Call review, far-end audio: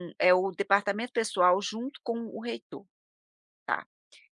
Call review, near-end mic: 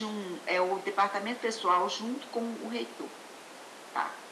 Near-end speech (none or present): none